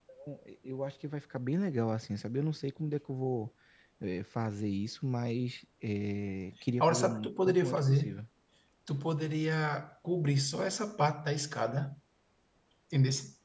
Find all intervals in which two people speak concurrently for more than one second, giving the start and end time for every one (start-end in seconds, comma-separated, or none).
6.8-8.1